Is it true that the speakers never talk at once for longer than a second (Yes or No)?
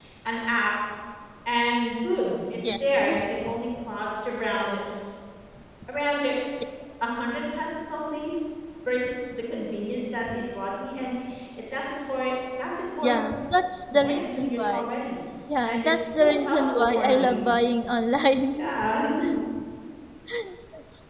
No